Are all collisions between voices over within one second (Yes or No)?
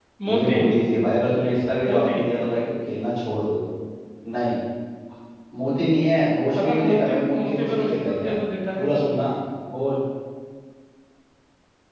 No